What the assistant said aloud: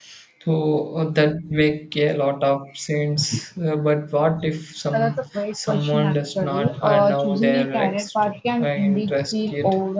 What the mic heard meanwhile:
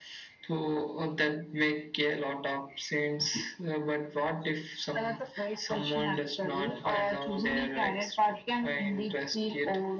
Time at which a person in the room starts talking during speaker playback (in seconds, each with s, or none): none